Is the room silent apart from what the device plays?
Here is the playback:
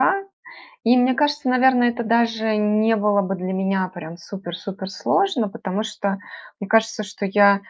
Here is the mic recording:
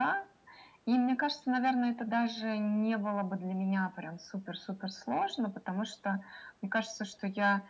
Yes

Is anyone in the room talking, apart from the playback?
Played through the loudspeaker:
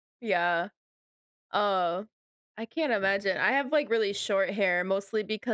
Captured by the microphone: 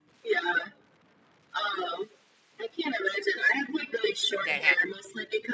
Yes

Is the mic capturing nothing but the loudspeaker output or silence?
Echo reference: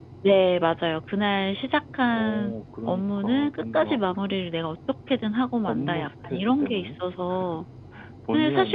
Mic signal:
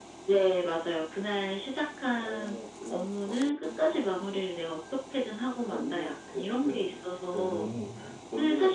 No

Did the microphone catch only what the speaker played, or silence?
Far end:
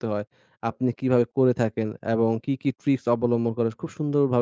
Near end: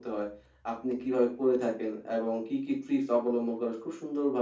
Yes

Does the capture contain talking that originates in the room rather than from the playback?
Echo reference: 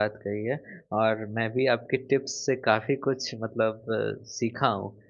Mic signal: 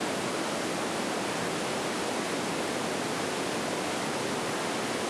No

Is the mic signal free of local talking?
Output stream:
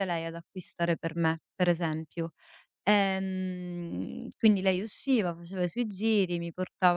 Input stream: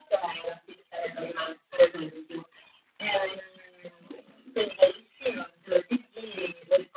Yes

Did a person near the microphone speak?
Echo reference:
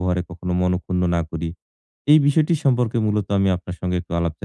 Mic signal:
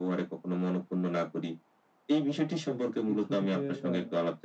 Yes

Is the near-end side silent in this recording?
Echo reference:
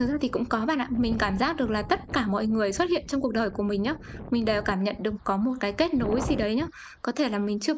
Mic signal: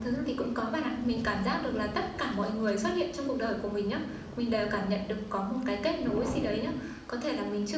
Yes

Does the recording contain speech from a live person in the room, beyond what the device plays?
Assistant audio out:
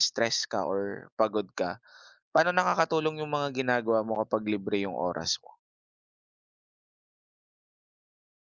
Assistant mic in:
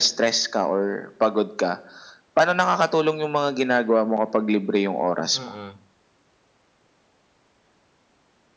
Yes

